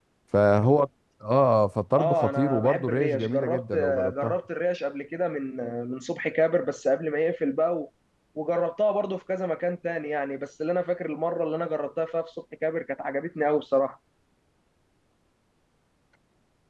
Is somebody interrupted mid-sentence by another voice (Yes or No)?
Yes